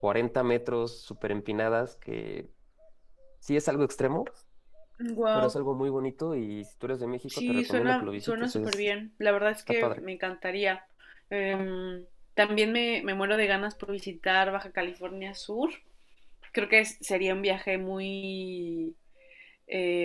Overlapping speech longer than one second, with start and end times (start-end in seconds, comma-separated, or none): 7.4-8.8